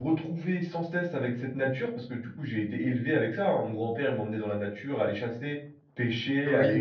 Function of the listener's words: listening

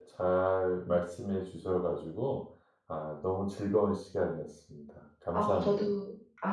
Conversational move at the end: taking over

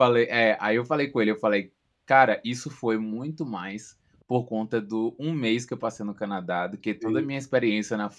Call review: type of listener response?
listening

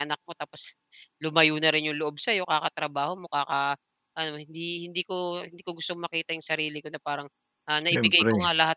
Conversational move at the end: listening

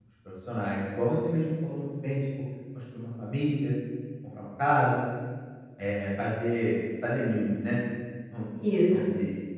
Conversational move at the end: listening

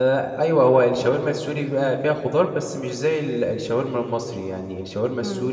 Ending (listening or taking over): listening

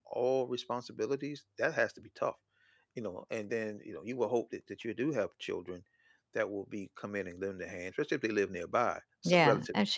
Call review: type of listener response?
taking over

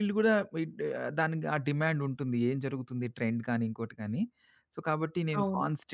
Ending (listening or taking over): listening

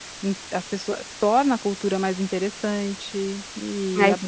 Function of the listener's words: listening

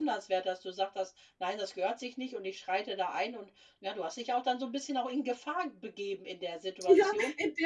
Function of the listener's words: taking over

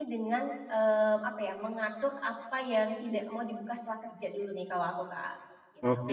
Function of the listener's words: taking over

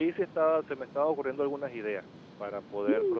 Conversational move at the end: taking over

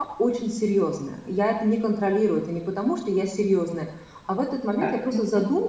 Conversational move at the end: listening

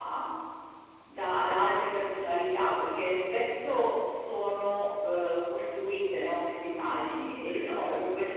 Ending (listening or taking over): listening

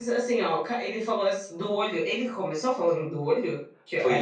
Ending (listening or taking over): taking over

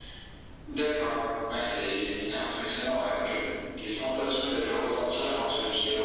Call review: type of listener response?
taking over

